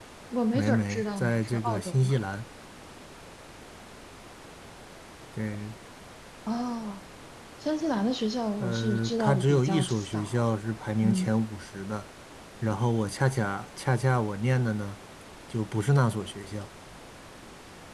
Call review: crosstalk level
present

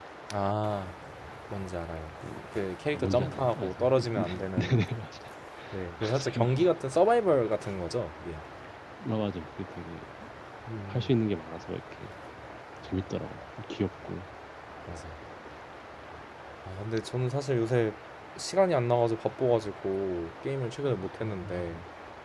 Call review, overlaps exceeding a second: present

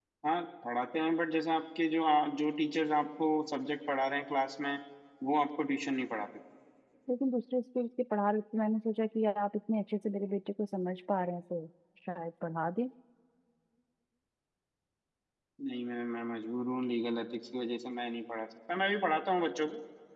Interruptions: none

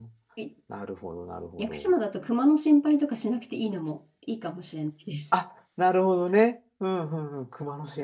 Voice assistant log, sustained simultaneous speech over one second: none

